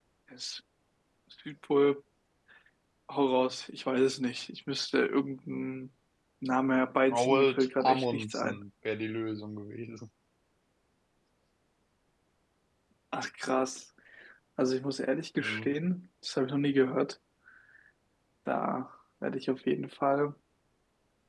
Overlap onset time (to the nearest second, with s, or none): 7 s